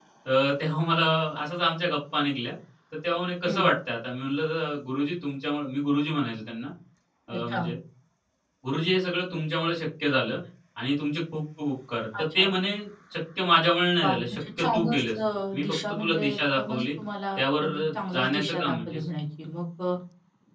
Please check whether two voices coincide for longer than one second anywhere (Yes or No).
Yes